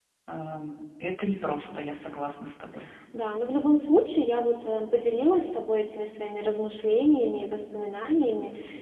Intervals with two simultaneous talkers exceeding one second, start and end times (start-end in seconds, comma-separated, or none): none